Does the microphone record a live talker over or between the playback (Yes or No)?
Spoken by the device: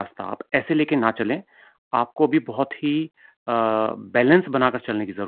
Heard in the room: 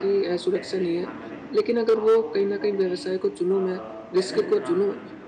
Yes